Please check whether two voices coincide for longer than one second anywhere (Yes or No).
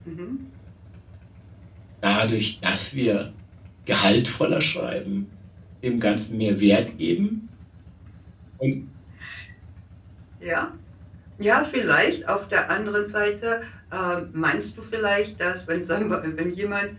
No